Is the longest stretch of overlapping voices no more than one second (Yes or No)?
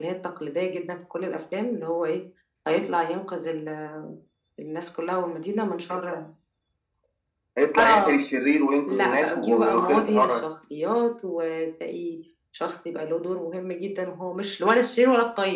No